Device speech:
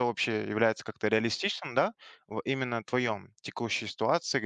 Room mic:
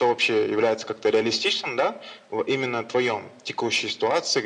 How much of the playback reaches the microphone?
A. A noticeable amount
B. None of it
A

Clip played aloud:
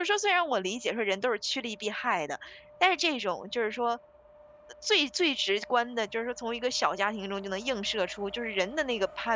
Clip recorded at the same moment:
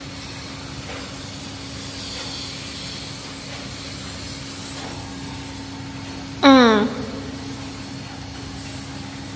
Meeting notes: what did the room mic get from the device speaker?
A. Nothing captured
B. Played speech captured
A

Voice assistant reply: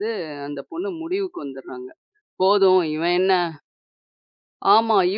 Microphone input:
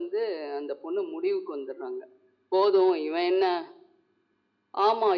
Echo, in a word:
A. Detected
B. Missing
A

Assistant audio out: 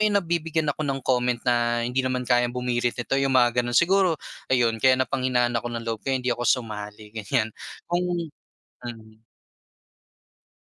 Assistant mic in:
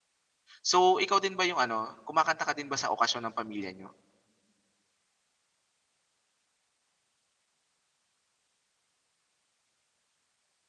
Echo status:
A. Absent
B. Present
A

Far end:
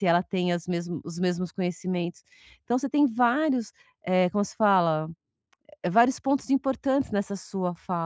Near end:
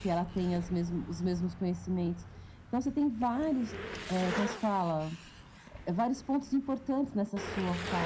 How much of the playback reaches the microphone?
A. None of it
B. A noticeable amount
B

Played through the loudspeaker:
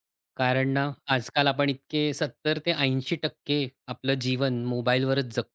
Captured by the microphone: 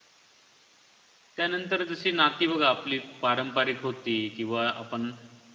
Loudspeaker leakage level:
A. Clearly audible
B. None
B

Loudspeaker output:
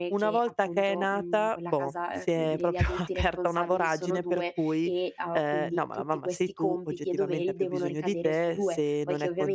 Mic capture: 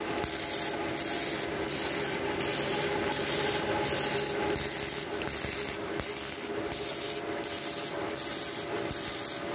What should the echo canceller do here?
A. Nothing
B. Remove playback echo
A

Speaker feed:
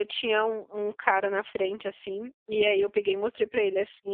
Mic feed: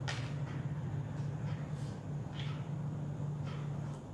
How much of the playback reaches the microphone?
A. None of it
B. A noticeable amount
A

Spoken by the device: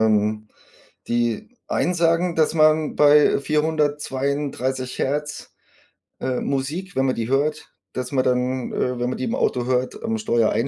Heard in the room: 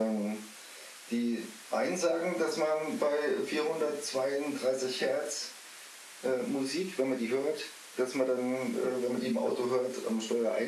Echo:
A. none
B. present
B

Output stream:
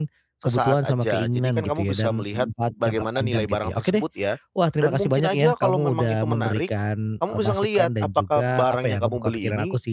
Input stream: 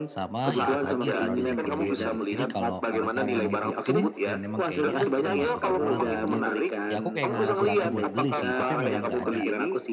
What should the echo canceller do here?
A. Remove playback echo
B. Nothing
A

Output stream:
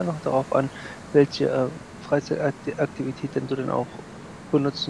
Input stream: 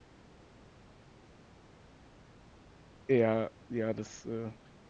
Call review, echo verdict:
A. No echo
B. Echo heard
A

